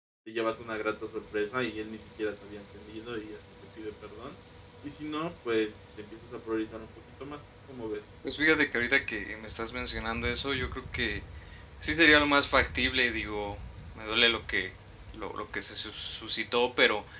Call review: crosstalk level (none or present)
none